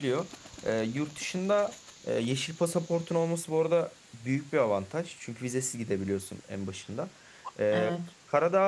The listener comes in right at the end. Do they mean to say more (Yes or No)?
No